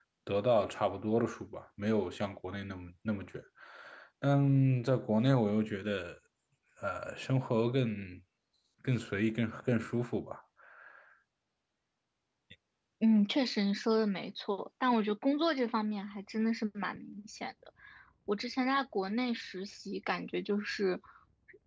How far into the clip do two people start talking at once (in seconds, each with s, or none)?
none